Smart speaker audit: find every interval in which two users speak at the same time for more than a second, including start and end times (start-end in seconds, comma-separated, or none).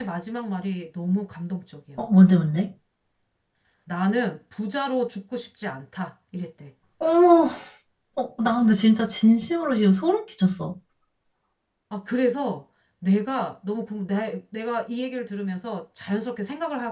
none